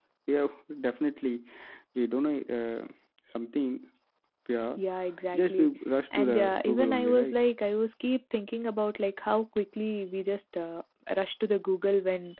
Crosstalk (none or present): present